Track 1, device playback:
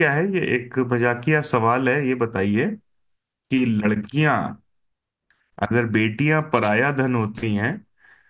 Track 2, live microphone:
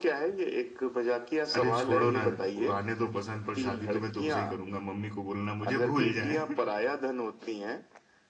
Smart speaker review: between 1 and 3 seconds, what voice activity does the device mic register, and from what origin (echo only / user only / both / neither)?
both